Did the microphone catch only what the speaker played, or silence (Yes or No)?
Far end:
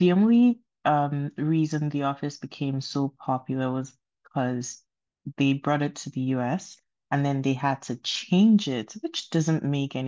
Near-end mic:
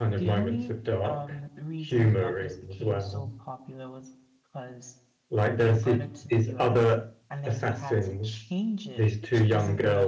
No